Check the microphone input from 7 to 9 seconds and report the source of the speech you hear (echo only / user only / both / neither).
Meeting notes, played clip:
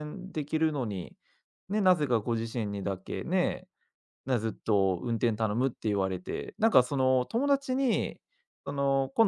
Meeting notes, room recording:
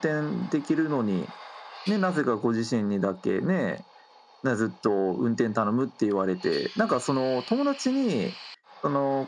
echo only